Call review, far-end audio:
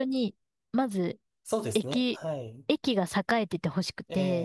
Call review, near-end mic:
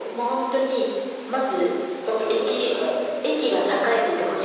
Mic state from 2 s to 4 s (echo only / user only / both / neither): echo only